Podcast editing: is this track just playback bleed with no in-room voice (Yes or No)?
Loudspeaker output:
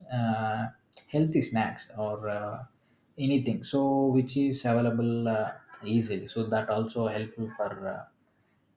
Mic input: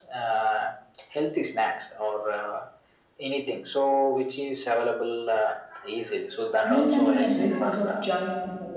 No